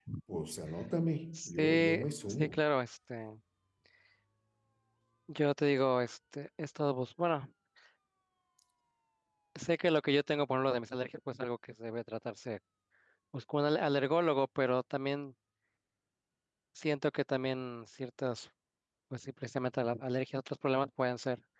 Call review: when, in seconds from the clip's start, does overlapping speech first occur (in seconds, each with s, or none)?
1.4 s